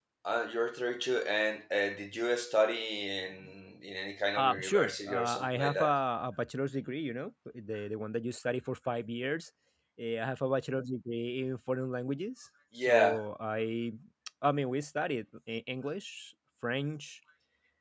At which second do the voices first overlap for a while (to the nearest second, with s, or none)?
4 s